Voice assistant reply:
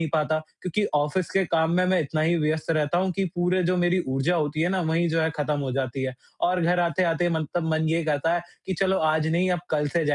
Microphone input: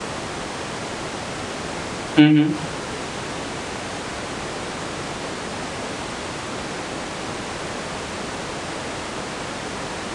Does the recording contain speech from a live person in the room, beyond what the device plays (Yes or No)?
Yes